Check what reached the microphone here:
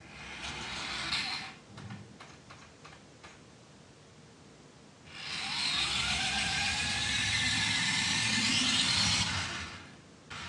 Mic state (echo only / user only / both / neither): neither